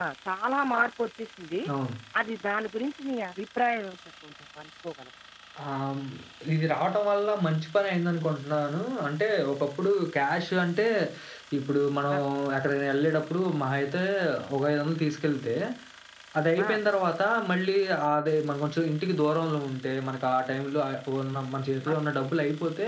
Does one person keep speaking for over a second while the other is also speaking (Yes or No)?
No